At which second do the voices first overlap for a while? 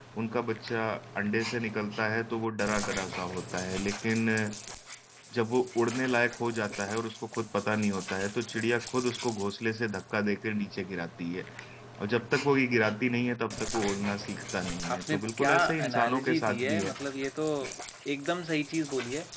14.8 s

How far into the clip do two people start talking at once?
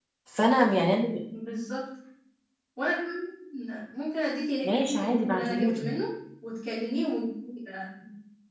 4.6 s

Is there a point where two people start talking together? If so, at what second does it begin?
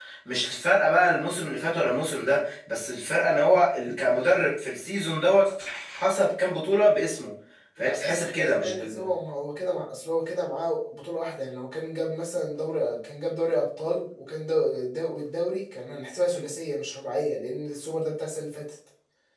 7.8 s

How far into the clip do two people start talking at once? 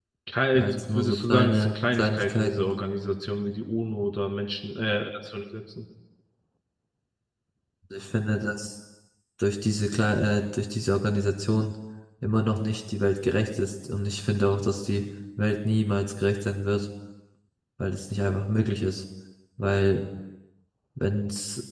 0.5 s

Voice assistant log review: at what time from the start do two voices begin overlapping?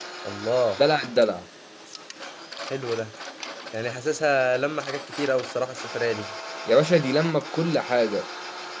none

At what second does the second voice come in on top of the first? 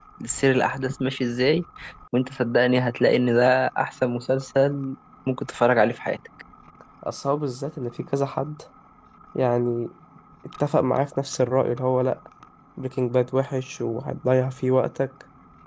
none

